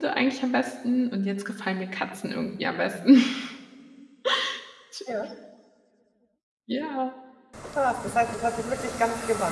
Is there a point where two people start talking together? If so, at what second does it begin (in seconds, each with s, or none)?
none